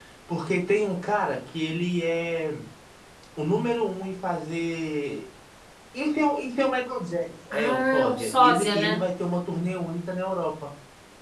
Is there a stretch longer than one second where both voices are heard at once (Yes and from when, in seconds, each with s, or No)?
Yes, from 7.5 s